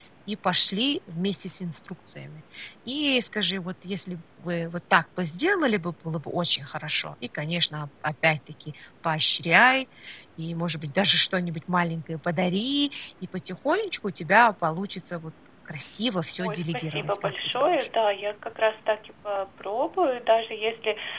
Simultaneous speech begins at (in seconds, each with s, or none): 16.4 s